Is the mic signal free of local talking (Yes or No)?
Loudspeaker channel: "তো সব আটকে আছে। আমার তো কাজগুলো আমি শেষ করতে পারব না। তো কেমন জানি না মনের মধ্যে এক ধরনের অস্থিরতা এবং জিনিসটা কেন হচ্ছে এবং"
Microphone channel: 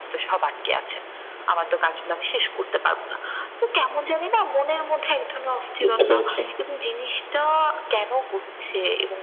No